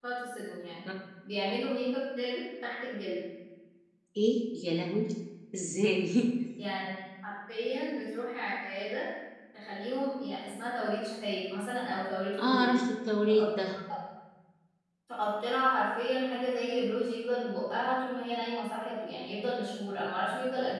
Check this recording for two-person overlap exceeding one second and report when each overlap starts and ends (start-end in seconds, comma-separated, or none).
none